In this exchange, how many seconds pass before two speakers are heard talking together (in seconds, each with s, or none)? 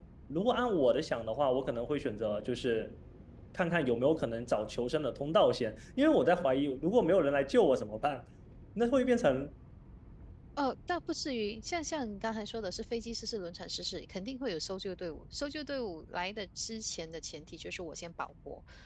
none